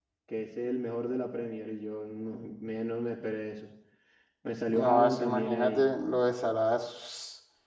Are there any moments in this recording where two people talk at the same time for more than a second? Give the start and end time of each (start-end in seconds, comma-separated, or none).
4.7-5.9